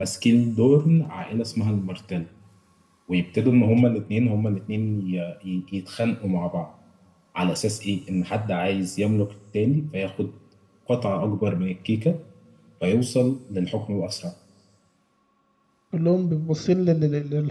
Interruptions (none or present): none